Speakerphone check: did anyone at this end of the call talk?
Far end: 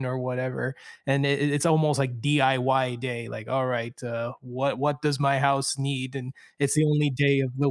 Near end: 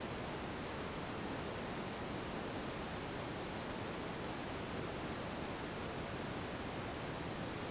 No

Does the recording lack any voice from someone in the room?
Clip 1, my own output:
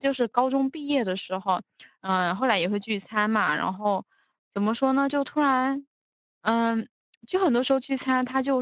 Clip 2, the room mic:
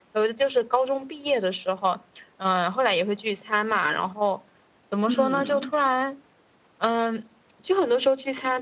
No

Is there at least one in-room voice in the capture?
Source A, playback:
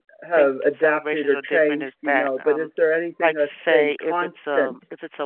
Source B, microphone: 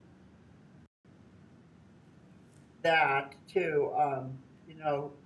Yes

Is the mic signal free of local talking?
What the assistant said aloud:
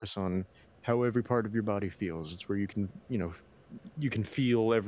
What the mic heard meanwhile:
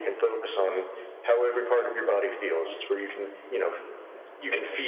Yes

